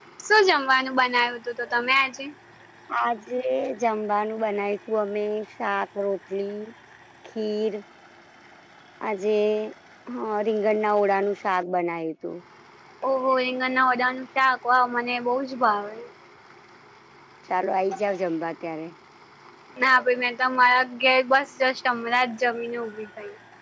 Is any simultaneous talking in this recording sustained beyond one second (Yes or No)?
No